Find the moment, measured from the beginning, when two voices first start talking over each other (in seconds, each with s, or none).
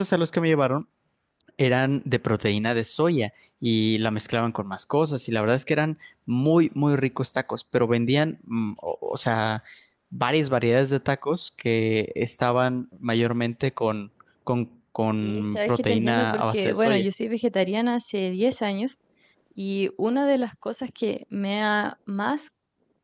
15.2 s